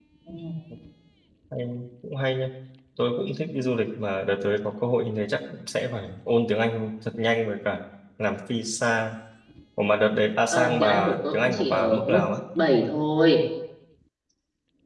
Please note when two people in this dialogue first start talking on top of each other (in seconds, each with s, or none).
10.5 s